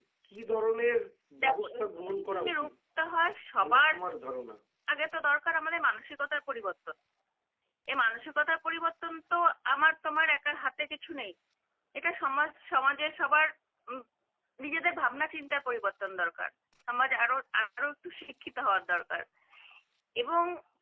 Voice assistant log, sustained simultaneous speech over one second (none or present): present